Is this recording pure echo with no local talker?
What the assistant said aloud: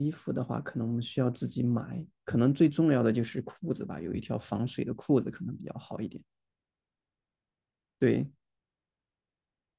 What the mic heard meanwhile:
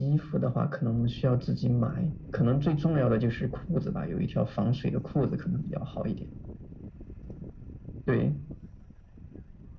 Yes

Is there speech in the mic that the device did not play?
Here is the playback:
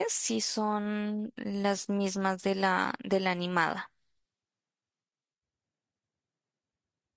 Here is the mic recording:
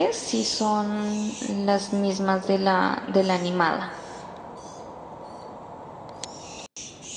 No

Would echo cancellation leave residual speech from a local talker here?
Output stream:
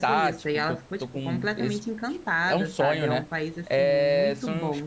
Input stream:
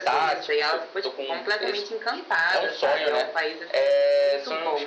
No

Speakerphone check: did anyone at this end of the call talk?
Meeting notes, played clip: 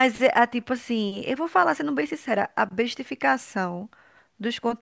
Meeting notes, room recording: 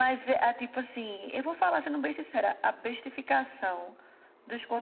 No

